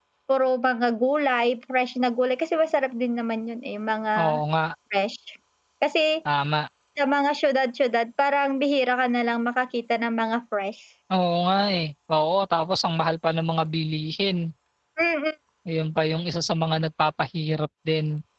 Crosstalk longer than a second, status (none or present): none